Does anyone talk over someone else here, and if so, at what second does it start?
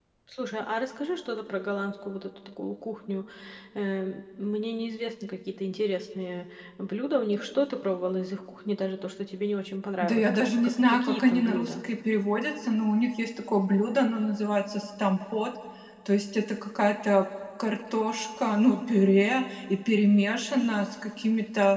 10.0 s

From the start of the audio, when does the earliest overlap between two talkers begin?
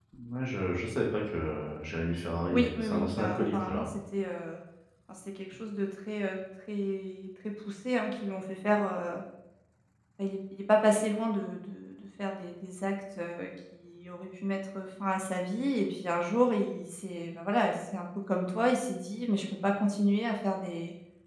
2.5 s

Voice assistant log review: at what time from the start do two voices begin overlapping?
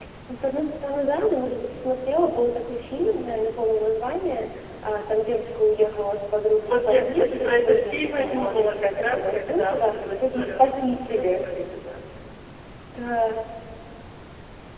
6.6 s

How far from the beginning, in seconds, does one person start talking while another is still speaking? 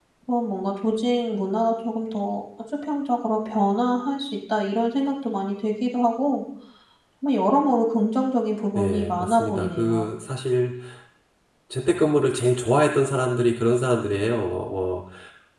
8.8 s

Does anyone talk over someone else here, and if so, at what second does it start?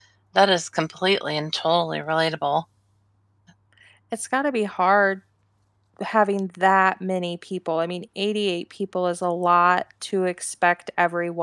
none

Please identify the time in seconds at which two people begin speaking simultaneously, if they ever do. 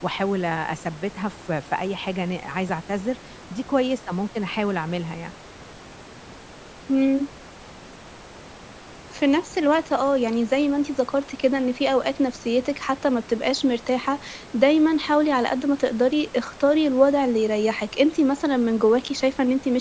none

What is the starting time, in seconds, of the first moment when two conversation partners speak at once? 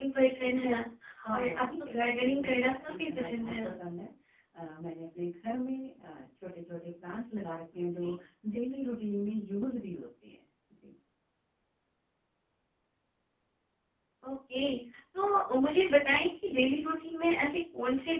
1.3 s

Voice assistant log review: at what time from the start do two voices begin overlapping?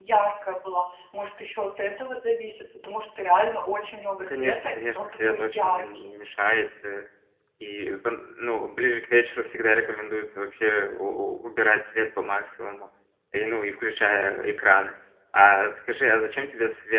4.2 s

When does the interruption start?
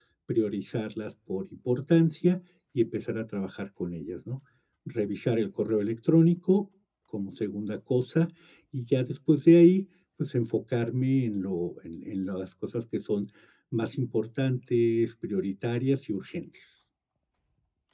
none

